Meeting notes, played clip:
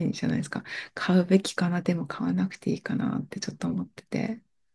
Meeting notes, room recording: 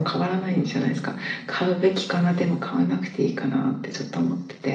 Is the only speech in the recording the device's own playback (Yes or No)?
Yes